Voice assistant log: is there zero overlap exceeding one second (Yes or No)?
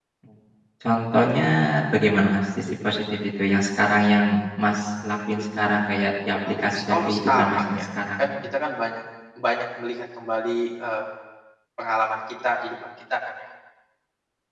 No